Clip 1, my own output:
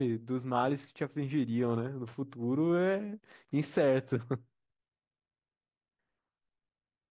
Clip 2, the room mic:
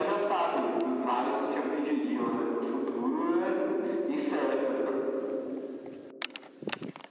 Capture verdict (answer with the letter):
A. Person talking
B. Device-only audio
B